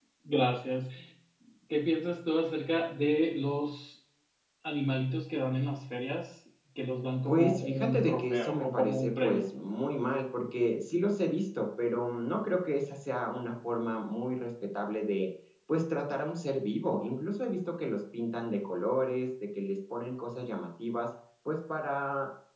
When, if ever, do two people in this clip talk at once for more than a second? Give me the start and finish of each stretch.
7.2-9.4

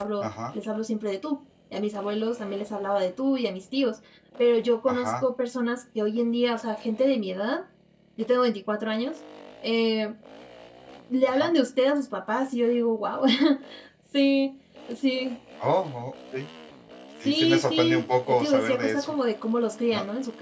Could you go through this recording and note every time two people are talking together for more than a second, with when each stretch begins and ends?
17.2-19.1

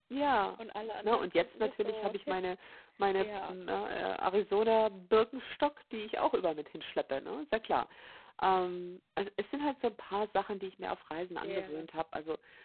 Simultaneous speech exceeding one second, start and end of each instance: 1.0-2.4

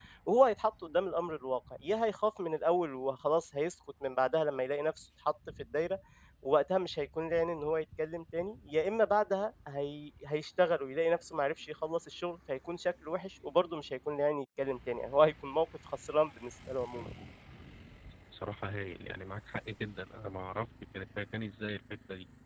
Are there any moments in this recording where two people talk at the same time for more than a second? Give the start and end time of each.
none

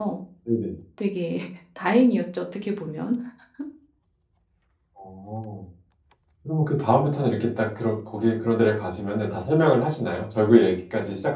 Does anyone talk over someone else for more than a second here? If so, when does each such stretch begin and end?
none

